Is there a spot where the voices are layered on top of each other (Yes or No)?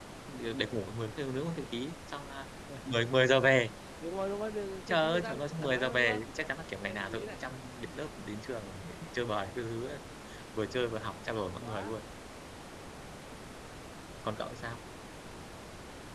Yes